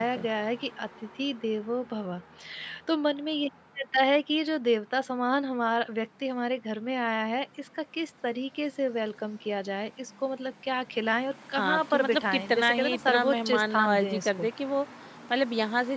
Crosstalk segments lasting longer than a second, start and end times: 11.6-14.5

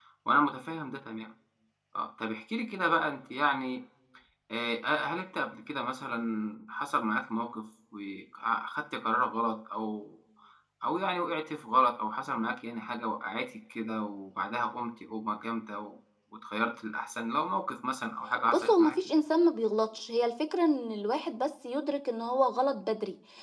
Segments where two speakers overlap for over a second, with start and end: none

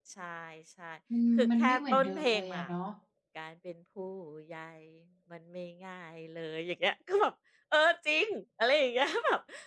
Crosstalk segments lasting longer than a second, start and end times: 1.4-2.6

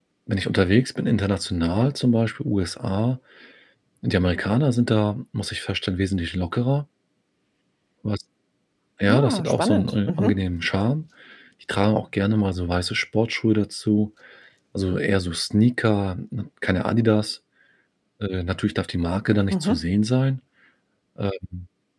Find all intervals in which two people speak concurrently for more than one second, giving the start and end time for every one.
9.1-10.4

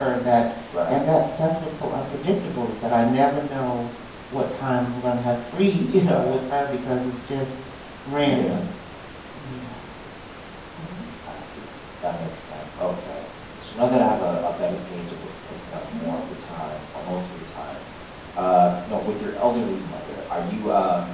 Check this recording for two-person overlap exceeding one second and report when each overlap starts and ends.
none

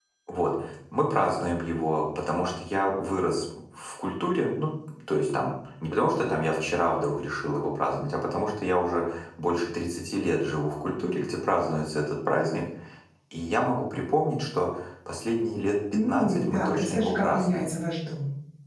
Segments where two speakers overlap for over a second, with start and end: 16.1-17.6

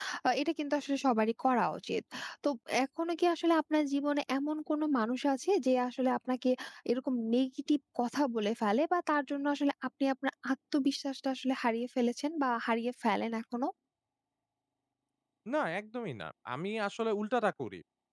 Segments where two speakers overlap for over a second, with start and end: none

